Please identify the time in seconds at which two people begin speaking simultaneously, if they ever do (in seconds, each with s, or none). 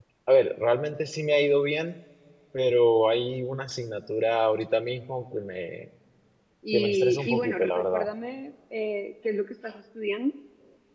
6.7 s